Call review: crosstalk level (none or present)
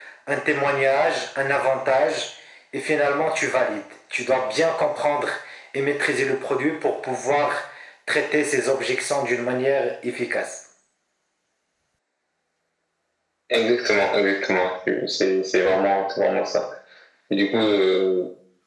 none